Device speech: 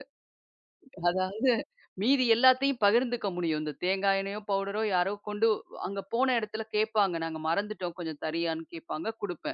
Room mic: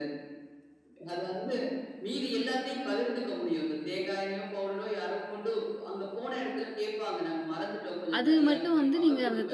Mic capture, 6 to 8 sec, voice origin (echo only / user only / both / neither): echo only